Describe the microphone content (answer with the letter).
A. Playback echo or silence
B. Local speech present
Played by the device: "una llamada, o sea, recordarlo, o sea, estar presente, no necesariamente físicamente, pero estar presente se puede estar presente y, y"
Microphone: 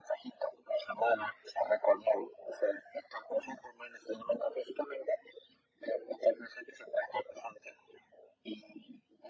A